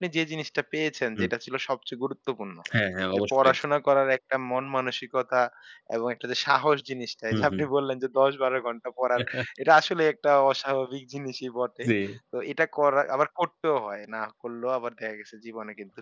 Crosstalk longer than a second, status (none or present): none